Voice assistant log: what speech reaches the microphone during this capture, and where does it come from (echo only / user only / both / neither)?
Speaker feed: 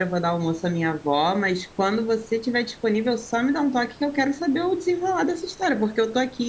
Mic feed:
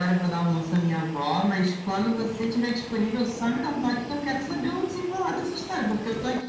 echo only